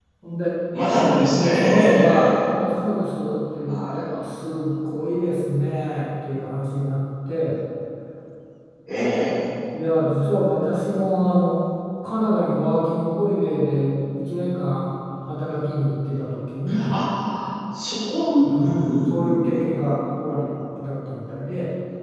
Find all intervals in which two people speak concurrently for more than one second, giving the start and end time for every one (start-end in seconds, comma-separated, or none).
0.9-2.6, 18.4-19.8